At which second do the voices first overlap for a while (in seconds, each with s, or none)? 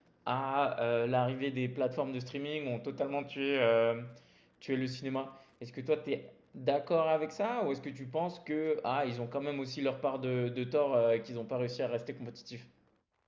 none